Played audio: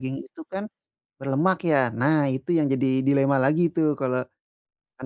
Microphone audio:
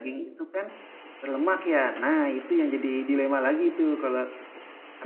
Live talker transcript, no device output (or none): none